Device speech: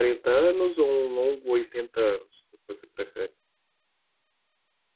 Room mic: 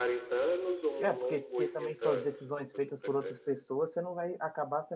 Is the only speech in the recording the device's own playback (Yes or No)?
No